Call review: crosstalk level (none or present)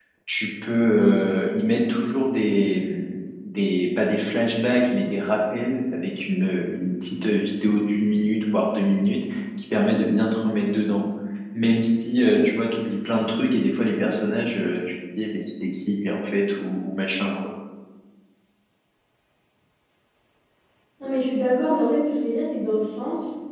none